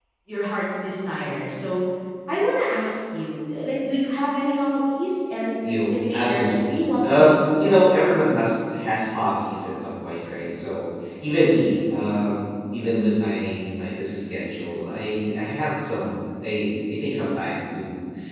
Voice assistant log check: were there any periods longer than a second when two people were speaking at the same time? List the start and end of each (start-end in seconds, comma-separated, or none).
5.9-7.8